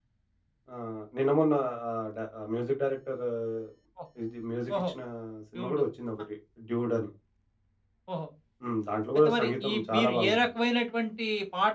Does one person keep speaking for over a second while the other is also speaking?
Yes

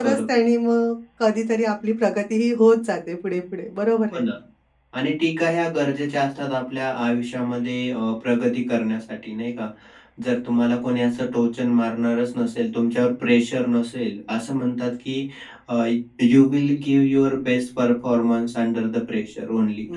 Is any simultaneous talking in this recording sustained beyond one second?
No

